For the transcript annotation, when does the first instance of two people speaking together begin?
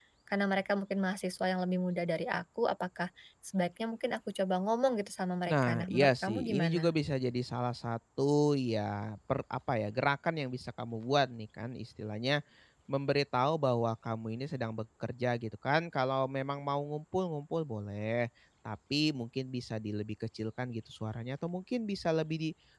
5.5 s

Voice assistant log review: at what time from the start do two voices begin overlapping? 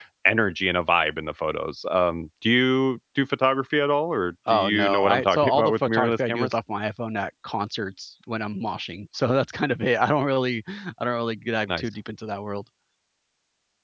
4.5 s

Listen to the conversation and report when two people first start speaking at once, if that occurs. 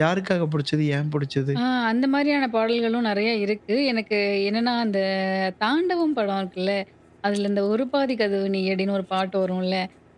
none

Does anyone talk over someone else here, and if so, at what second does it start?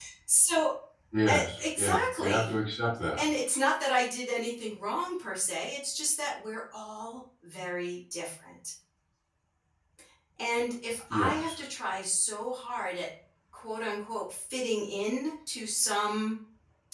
1.3 s

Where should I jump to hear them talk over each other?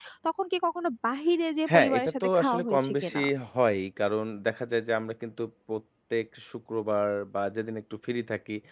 1.7 s

